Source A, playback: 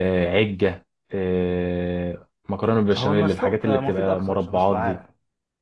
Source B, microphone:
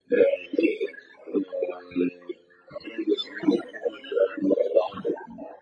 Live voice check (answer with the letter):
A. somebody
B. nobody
B